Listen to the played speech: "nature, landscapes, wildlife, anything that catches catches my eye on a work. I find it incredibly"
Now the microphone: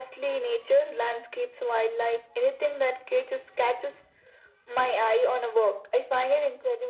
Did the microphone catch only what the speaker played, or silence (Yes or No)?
Yes